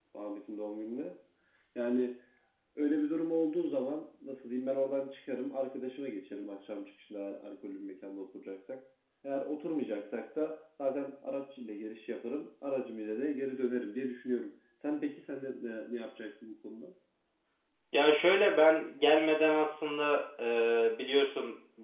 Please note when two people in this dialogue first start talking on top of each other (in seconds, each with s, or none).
none